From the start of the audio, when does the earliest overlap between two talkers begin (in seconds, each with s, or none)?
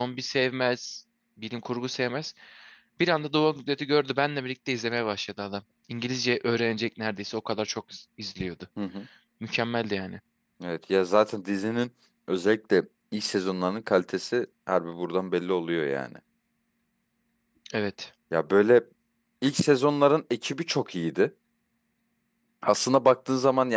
none